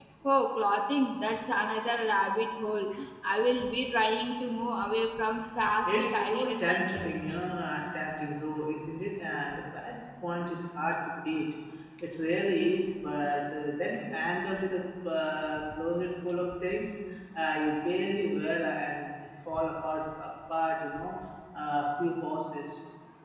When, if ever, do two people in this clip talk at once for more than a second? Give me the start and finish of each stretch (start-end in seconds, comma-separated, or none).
5.8-7.1